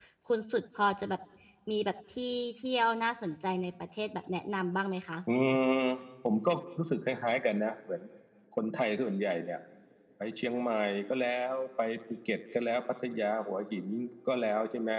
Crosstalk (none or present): none